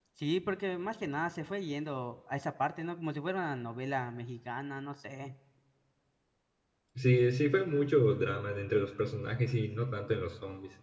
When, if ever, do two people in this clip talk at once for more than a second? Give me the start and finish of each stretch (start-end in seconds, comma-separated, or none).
none